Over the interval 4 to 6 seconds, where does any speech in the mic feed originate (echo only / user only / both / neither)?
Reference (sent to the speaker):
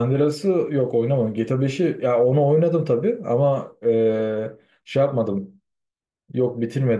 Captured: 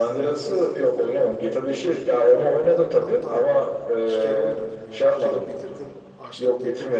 both